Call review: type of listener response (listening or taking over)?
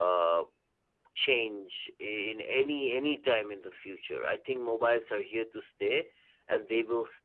listening